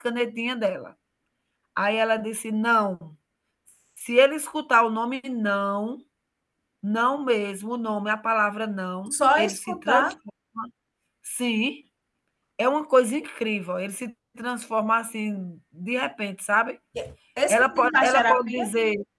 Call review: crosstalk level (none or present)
present